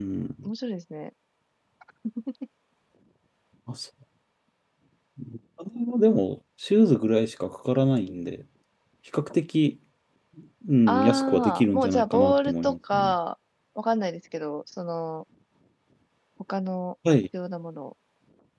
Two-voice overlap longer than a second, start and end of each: 10.9-13.1

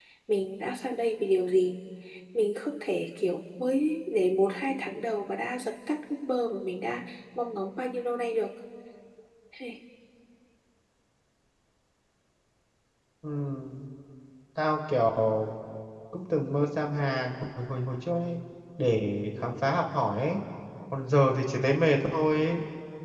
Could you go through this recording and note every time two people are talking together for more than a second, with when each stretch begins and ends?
none

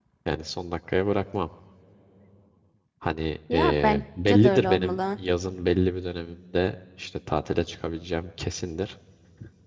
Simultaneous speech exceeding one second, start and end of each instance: 3.5-5.0

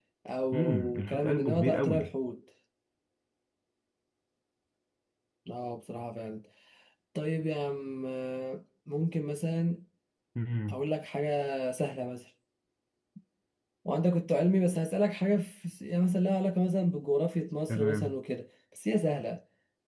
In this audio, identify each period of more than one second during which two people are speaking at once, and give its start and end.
0.5-2.1

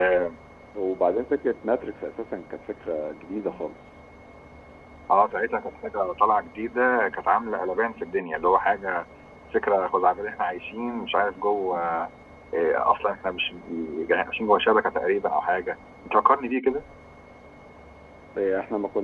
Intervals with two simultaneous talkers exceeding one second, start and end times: none

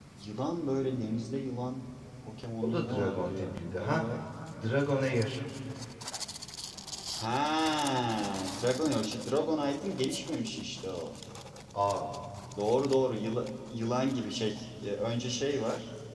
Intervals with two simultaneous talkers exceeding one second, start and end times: 2.6-4.1

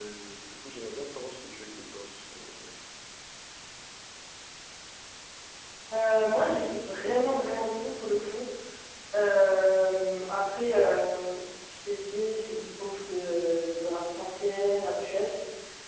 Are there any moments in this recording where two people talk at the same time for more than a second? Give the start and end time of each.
none

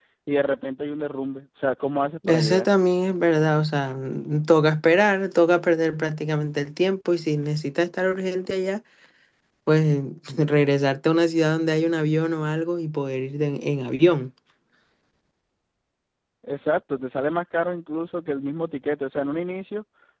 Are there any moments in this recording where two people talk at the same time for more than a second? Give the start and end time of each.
none

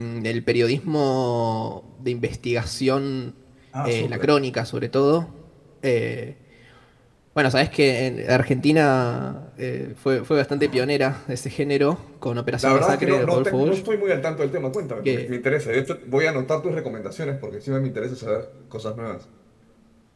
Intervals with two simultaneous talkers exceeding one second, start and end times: 12.6-13.8

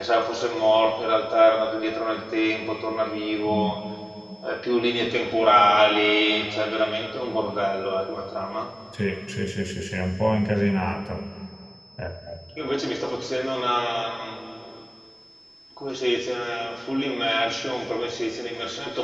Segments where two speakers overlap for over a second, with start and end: none

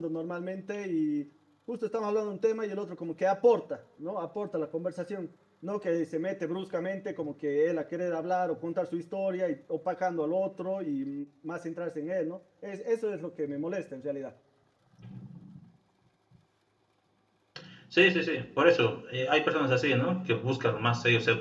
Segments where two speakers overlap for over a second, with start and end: none

